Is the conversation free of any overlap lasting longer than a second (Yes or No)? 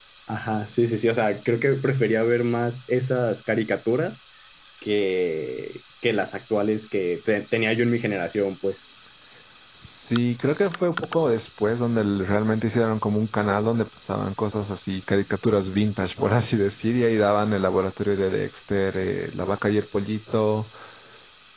Yes